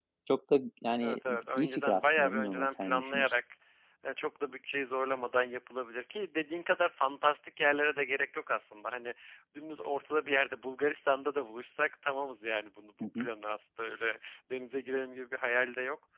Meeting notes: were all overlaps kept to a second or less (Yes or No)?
No